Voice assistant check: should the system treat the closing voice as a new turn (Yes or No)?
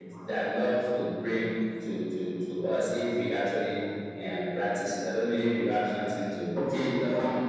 Yes